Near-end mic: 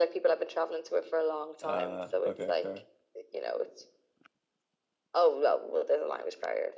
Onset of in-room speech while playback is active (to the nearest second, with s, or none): 2 s